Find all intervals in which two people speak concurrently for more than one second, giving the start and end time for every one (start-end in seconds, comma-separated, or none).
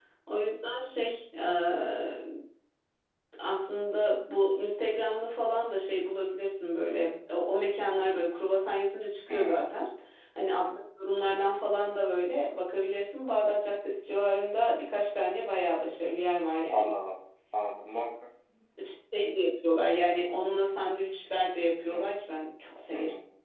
none